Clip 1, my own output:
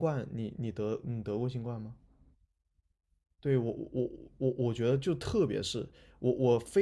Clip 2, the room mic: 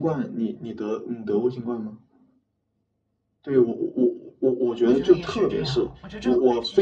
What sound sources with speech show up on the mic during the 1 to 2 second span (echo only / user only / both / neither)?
echo only